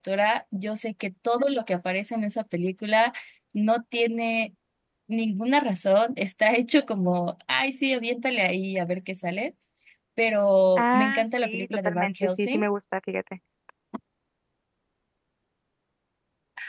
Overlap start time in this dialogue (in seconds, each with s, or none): 10.8 s